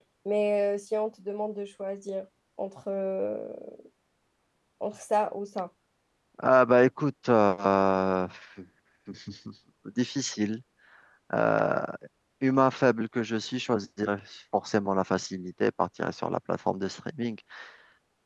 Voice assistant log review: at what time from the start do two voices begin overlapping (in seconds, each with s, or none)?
none